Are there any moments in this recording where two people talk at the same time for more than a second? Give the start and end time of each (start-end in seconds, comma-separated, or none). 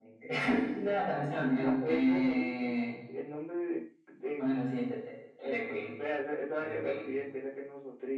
1.3-2.8